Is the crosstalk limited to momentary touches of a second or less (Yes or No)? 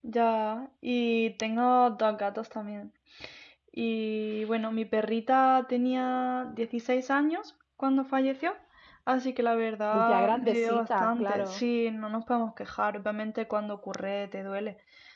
No